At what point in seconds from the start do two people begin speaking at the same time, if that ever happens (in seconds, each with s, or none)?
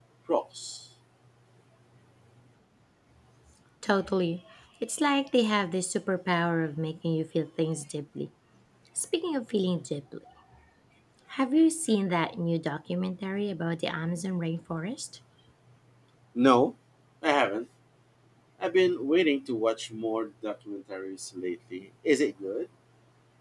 none